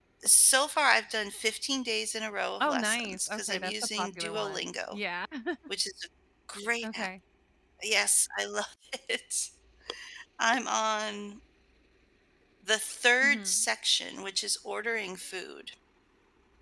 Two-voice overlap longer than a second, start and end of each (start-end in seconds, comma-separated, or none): 2.6-5.0